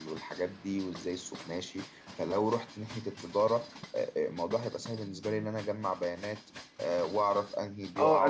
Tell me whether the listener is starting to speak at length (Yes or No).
Yes